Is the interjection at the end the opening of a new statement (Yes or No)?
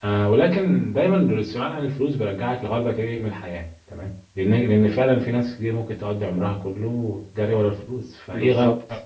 No